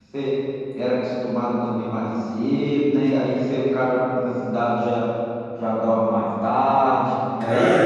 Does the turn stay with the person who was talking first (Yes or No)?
No